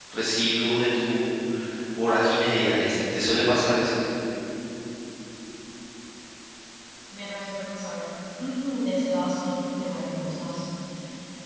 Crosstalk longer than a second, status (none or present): none